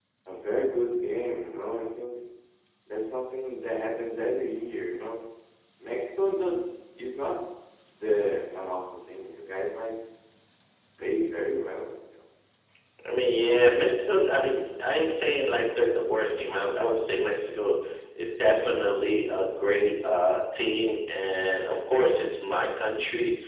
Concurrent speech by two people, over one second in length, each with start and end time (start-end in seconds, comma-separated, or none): none